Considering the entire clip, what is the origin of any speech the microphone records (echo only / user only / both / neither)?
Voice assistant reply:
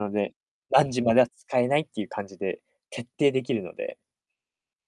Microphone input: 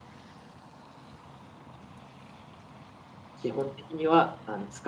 user only